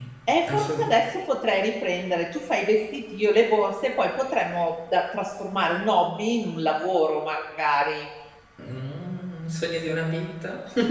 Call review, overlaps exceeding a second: none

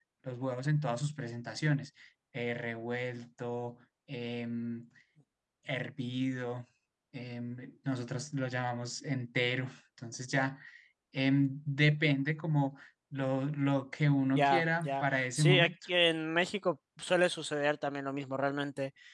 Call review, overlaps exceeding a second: present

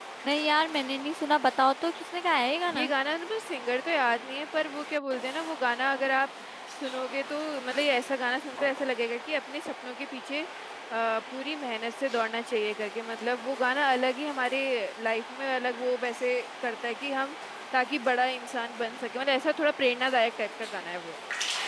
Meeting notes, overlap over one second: none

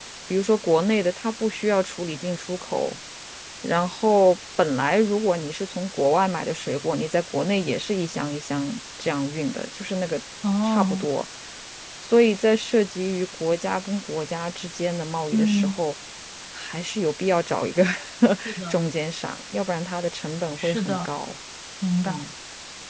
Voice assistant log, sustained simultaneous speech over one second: none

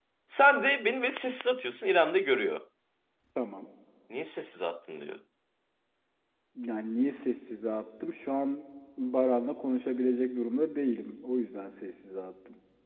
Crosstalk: none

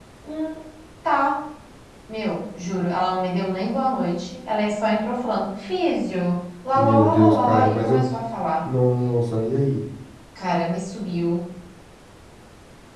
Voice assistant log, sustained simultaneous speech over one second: present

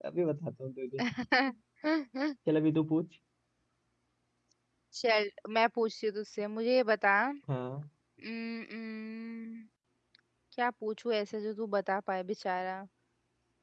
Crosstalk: none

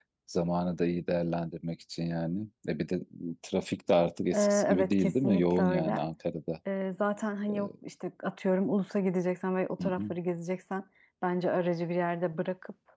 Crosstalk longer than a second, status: present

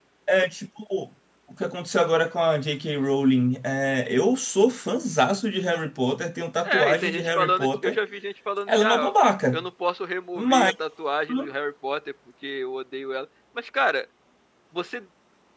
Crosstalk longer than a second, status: present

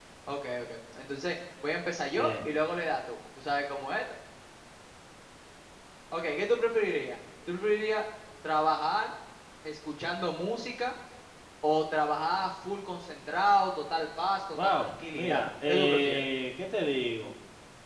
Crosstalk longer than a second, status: present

